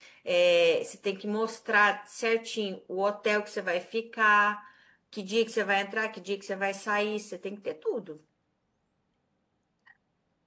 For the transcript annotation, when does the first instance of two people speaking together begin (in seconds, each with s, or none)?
none